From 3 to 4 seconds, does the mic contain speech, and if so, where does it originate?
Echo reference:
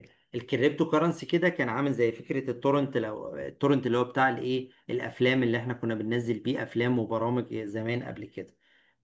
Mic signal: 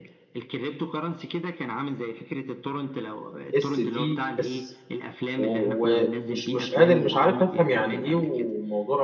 both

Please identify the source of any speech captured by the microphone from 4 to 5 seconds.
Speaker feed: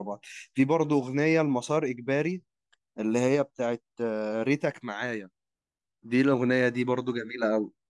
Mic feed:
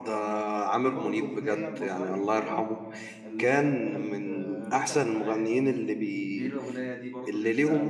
both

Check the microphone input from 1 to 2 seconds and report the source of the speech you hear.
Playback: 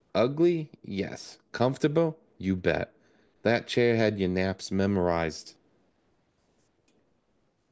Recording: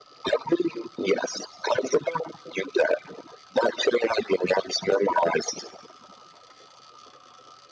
echo only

